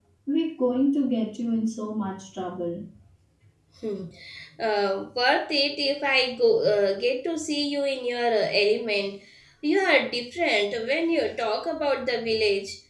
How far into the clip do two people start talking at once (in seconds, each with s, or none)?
none